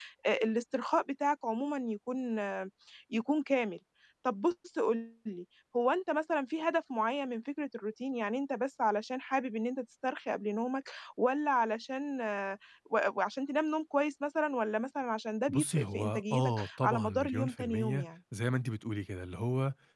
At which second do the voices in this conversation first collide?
15.5 s

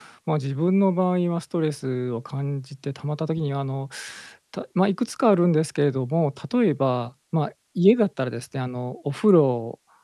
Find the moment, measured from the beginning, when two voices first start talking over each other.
none

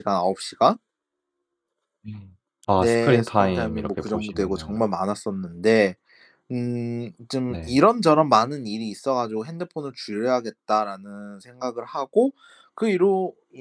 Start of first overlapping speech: 2.8 s

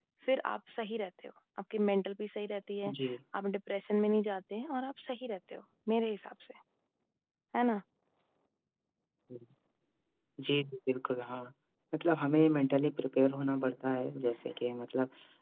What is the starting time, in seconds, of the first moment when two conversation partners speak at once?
none

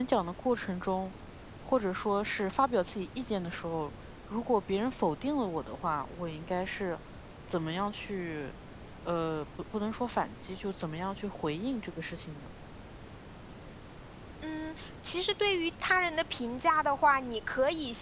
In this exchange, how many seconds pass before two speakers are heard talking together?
none

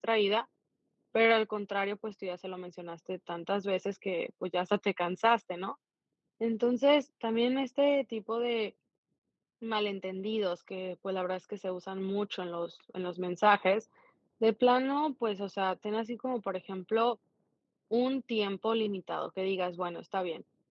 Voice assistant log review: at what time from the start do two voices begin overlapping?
none

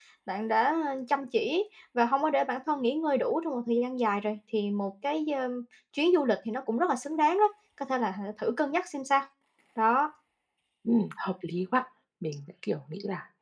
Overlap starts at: none

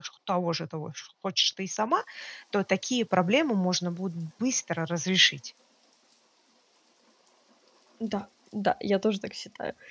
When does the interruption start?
none

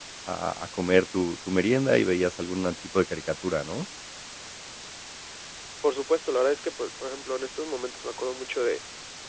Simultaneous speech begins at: none

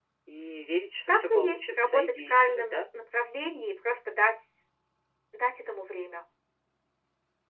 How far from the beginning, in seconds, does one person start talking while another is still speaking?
1.1 s

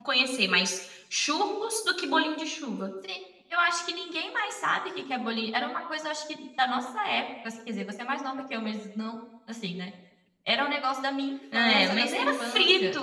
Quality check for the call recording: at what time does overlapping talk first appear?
11.5 s

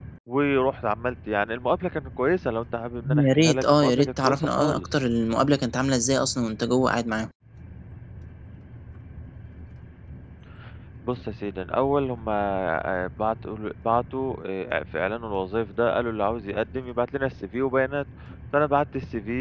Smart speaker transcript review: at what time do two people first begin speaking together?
3.0 s

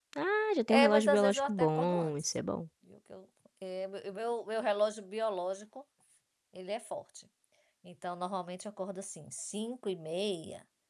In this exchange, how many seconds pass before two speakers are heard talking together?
0.7 s

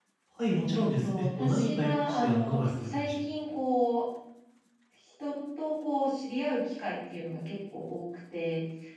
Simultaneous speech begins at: 1.0 s

